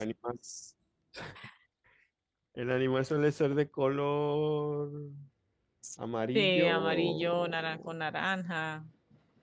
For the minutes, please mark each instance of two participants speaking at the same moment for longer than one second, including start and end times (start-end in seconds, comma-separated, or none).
6.3-7.9